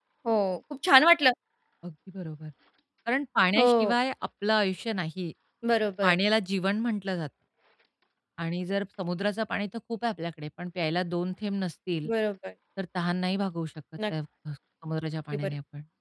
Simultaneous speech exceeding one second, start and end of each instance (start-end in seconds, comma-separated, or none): none